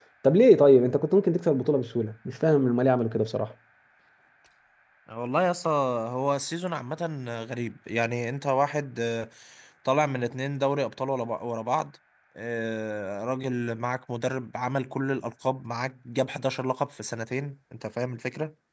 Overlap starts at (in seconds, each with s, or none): none